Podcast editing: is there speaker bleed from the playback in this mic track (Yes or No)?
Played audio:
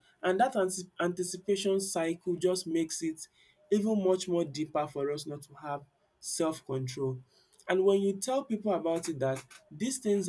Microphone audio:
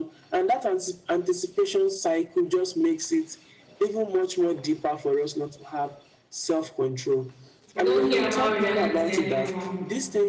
Yes